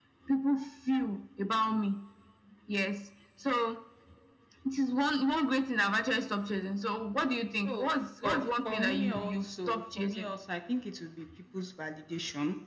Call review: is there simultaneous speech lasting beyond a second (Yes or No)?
Yes